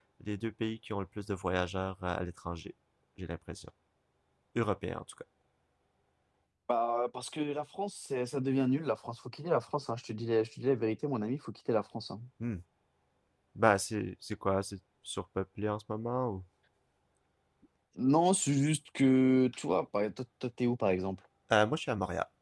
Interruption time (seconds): none

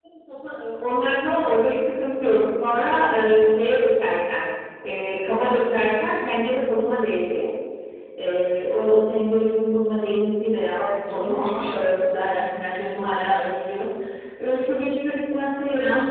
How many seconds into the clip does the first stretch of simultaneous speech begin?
10.8 s

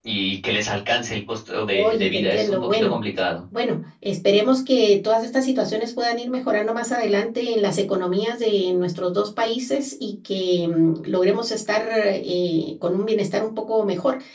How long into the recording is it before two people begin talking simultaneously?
1.7 s

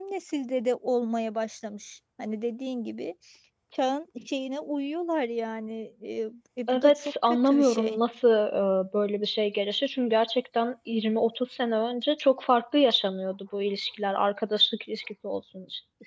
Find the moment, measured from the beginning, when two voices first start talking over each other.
6.7 s

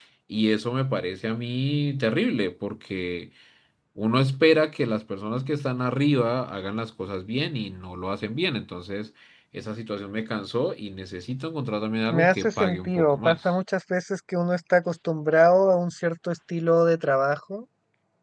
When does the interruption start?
12.1 s

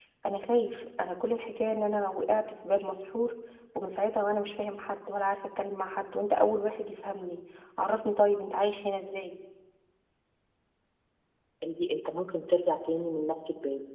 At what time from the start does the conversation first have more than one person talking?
none

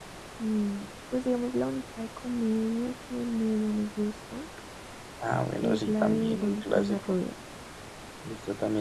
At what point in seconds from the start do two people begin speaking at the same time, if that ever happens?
5.6 s

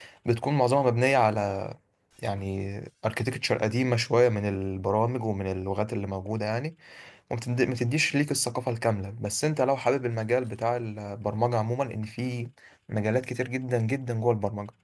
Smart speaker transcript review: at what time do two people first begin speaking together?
none

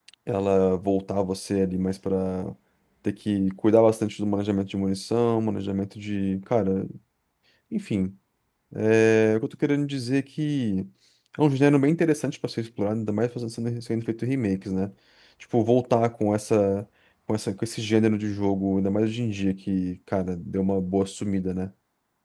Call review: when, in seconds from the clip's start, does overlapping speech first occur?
none

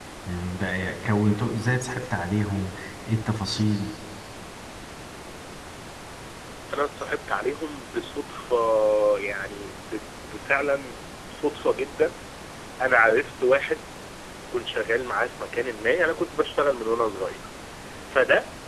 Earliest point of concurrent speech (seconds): none

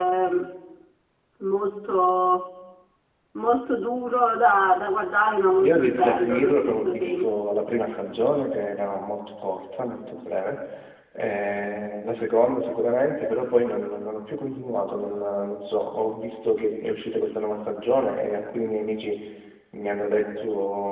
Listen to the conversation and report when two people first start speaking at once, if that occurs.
5.5 s

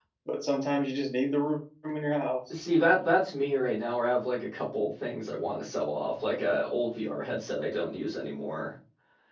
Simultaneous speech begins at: none

